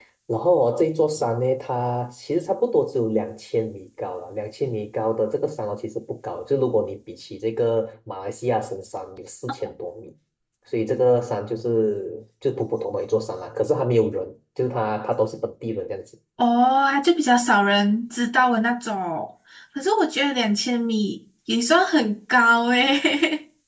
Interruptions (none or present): none